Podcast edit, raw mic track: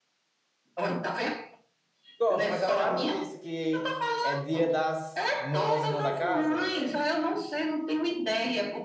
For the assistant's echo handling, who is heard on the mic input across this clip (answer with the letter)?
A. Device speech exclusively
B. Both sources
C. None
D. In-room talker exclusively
B